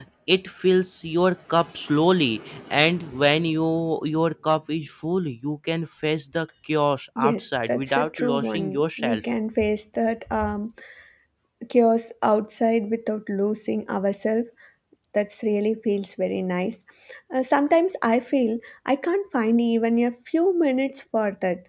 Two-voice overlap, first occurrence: 7.2 s

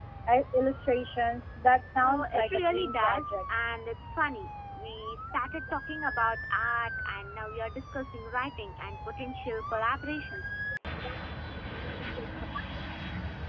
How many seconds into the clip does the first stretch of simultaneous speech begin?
2.0 s

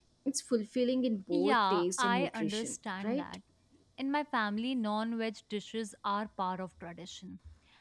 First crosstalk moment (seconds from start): 1.3 s

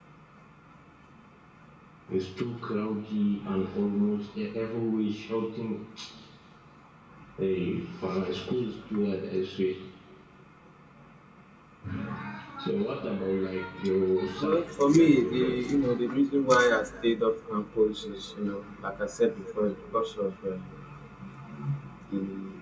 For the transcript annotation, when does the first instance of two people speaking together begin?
14.3 s

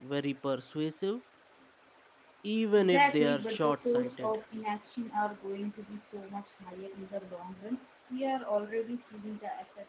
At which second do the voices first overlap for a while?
2.8 s

